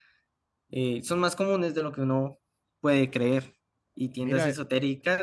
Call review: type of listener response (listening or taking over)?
listening